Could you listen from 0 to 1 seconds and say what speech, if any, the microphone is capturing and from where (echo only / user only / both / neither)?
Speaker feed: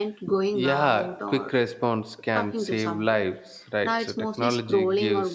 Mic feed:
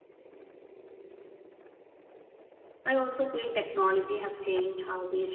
neither